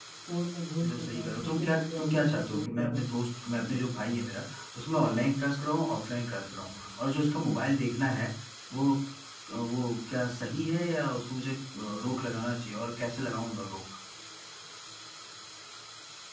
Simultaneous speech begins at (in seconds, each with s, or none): 0.8 s